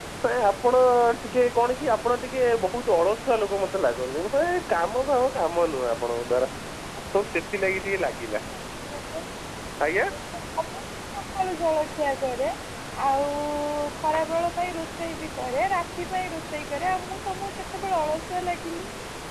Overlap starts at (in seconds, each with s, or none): none